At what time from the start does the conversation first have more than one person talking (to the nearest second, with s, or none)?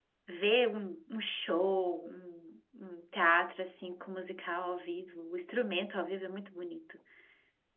none